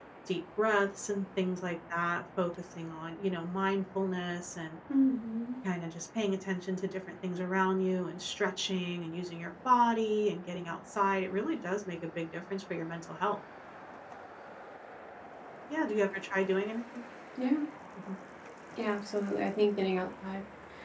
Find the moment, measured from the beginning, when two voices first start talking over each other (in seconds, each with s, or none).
none